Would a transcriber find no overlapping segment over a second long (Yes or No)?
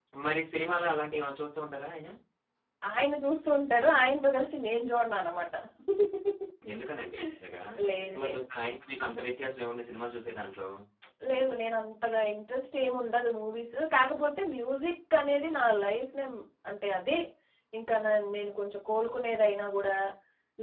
Yes